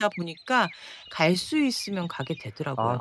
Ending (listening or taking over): taking over